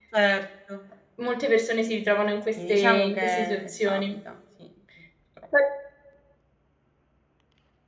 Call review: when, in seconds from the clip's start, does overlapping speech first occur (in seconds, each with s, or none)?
2.6 s